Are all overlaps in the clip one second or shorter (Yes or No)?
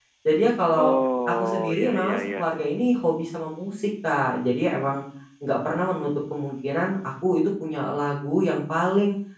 No